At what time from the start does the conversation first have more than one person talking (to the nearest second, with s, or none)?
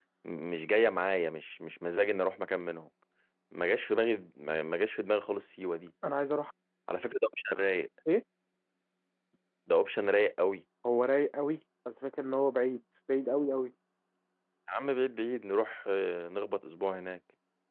none